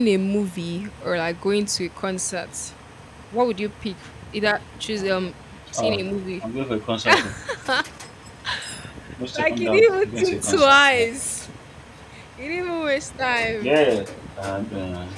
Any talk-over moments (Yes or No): Yes